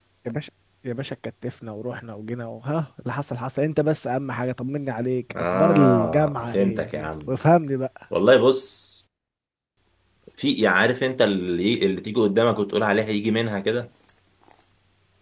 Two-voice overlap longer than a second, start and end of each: 5.3-7.3

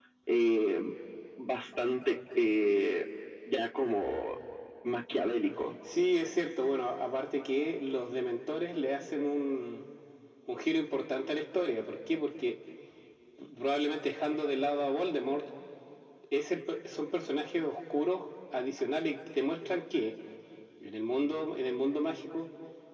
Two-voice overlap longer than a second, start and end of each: none

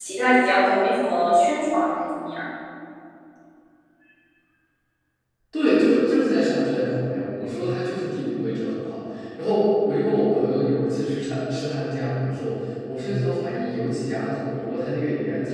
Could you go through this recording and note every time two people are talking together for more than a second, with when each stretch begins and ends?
none

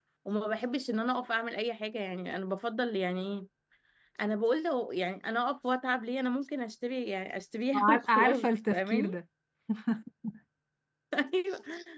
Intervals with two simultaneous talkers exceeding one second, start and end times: 7.8-9.2

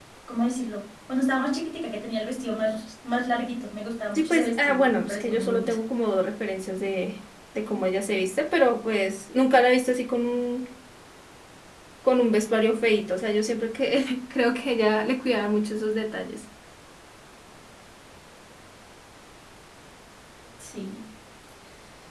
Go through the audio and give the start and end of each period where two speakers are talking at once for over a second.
4.2-5.8

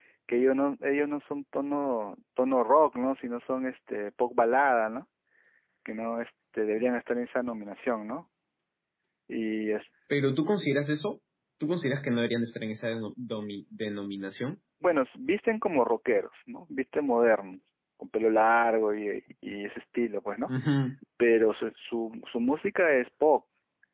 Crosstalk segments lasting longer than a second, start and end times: none

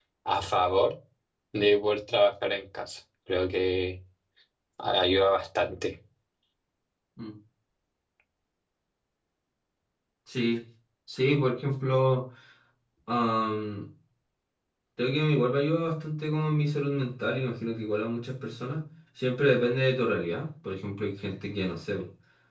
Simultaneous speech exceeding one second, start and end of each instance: none

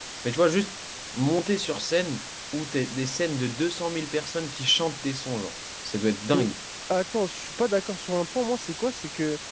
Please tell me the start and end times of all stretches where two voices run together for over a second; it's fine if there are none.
none

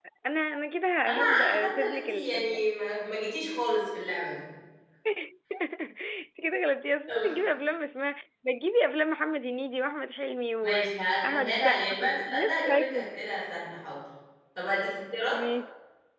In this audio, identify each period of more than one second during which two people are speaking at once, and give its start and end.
1.1-2.6, 10.6-13.2

